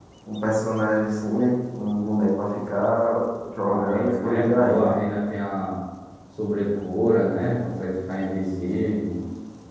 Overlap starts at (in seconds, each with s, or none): 3.7 s